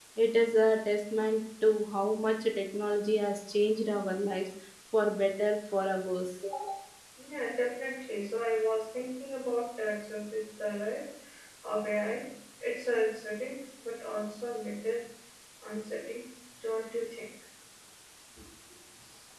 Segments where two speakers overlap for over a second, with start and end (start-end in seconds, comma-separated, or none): none